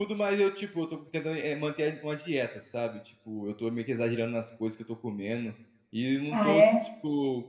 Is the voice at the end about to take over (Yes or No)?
No